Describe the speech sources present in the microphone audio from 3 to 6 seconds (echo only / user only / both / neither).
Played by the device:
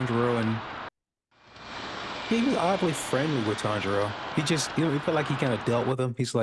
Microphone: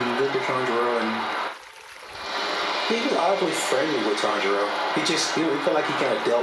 echo only